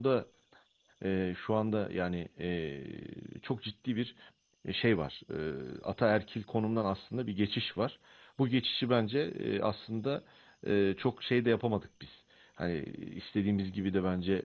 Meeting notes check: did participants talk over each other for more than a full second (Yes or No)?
No